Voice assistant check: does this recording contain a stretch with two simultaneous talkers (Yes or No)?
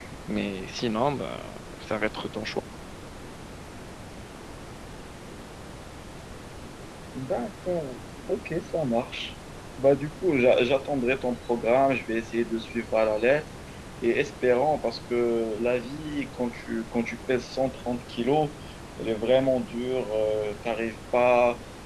No